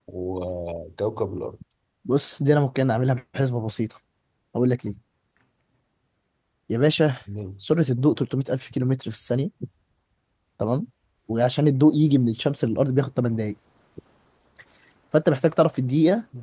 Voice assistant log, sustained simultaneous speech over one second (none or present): none